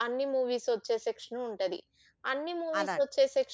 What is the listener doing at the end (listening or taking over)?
listening